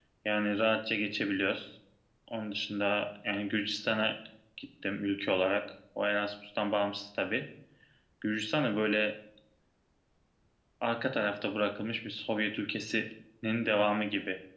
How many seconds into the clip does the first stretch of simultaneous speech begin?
none

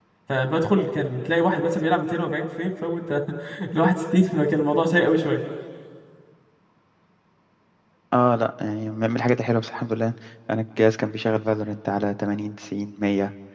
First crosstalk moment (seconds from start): none

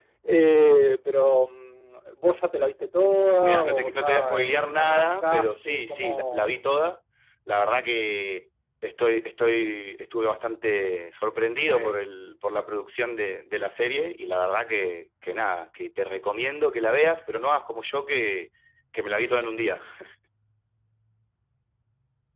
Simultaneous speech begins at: 3 s

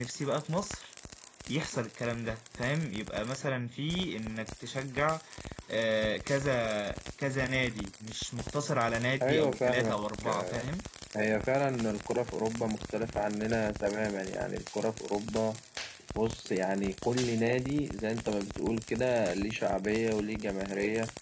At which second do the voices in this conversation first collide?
9 s

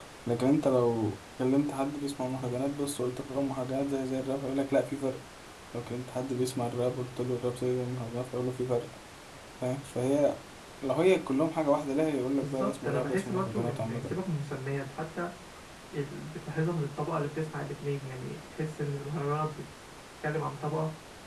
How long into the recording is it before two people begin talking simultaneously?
12 s

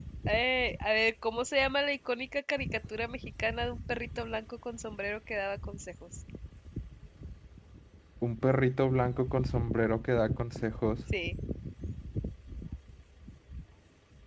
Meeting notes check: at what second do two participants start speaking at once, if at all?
none

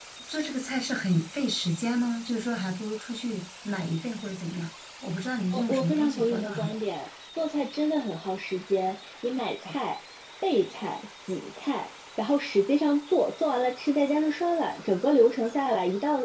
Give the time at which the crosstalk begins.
6 s

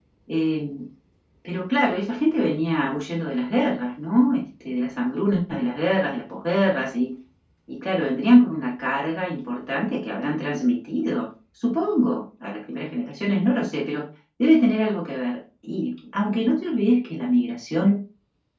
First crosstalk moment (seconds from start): none

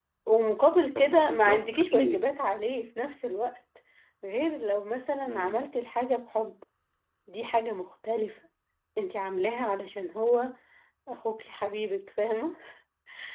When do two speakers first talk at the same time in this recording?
1 s

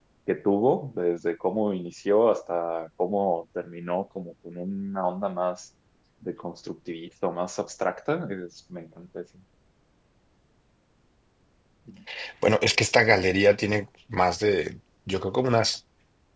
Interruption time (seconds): none

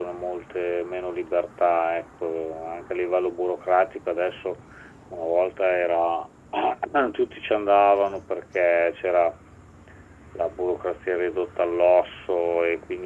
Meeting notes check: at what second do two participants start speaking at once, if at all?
none

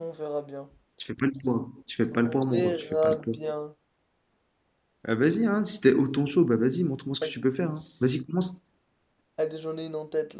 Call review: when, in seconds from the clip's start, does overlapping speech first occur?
2 s

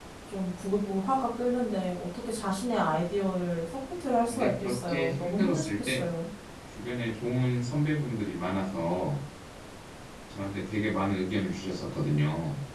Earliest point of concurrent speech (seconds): 4 s

